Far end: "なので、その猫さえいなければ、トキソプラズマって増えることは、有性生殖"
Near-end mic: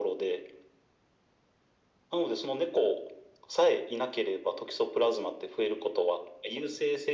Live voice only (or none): none